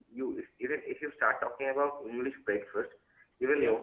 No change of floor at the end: Yes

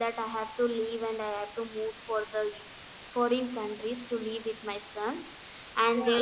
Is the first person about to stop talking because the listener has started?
Yes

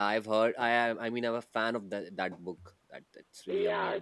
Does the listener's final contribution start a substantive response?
Yes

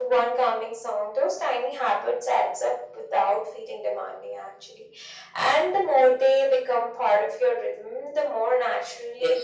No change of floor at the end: No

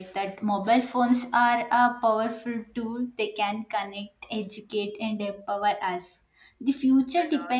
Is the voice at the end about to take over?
No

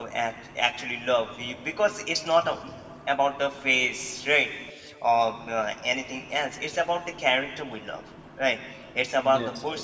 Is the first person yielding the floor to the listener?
No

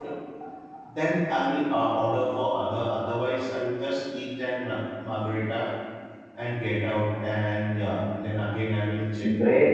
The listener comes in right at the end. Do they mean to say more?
Yes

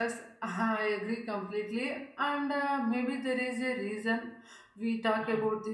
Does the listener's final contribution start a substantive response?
No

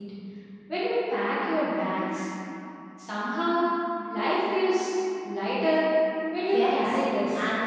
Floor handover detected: Yes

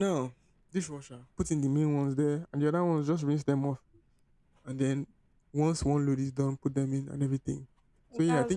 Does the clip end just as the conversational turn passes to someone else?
No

